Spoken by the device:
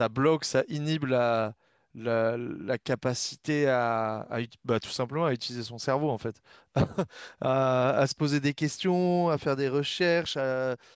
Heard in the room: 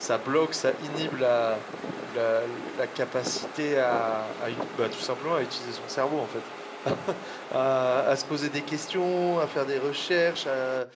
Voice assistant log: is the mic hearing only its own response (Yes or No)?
Yes